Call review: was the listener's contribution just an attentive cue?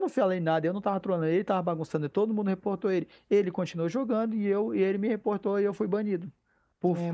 Yes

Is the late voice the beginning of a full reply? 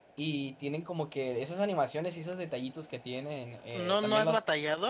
Yes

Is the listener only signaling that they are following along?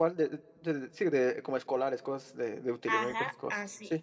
No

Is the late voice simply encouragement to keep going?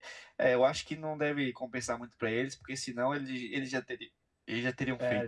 No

